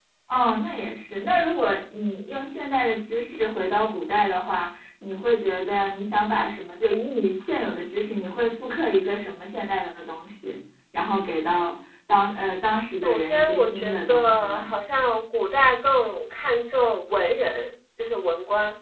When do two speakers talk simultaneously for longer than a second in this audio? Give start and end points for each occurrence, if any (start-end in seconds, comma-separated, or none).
13.0-14.7